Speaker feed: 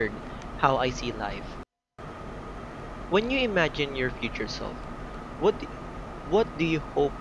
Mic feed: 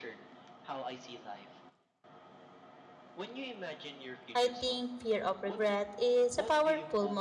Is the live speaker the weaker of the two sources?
No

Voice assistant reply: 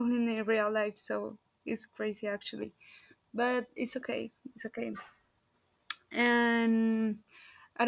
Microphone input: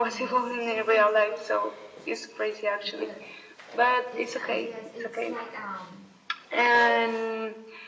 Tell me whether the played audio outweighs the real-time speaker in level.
Yes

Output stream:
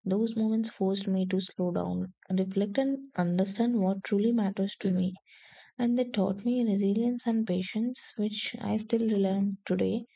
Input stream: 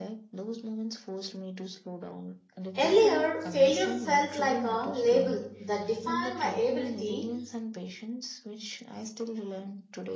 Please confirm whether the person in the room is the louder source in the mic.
Yes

